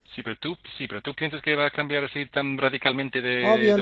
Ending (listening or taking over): taking over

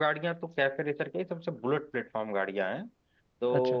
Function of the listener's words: listening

